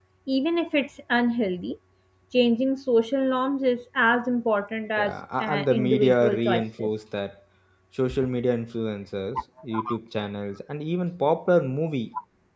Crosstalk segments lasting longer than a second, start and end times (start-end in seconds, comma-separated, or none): 5.0-6.9